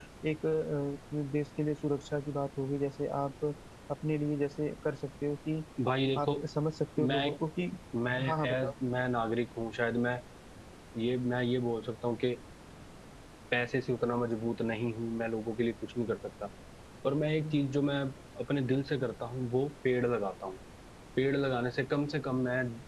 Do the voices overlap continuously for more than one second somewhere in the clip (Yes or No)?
No